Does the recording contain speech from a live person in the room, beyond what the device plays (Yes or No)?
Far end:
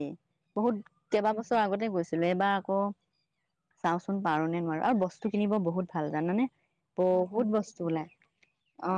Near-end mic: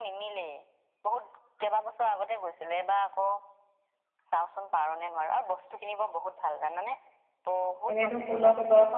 Yes